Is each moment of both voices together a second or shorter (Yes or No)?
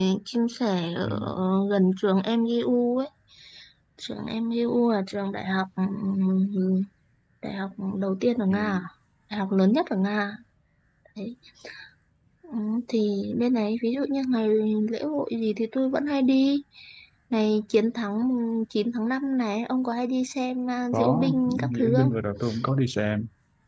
No